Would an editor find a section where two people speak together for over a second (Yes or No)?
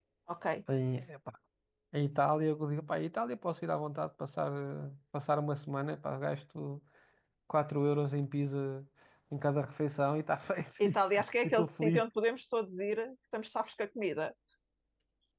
No